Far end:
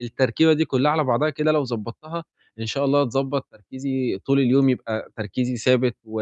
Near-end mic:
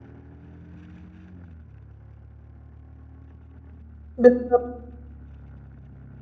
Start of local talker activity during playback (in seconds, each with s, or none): 4.2 s